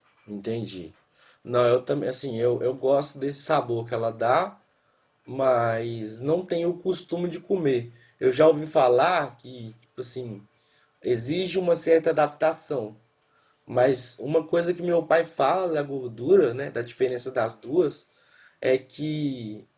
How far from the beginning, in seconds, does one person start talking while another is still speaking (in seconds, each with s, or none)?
none